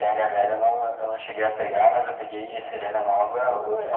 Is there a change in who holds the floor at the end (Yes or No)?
Yes